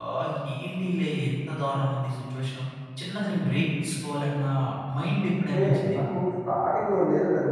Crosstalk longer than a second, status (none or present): none